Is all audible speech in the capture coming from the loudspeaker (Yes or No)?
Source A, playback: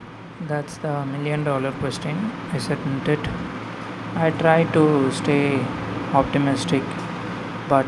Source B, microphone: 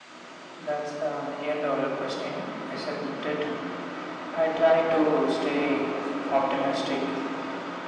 Yes